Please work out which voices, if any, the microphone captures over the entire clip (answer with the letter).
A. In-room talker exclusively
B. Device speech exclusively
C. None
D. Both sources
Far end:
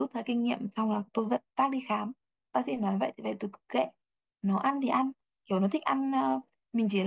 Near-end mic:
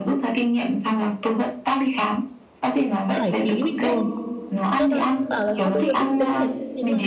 D